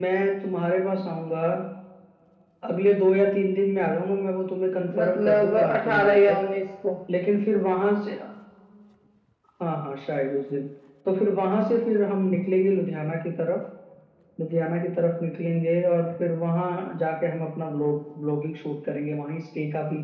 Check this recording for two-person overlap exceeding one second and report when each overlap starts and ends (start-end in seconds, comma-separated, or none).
5.0-6.4